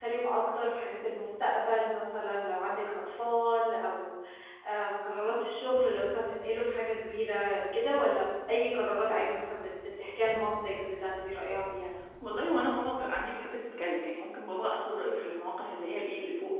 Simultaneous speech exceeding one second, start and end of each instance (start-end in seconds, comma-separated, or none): none